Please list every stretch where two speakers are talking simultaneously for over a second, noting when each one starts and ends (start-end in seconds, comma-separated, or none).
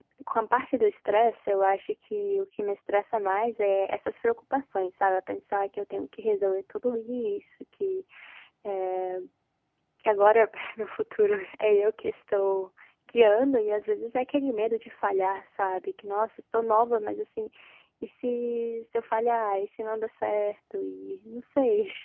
none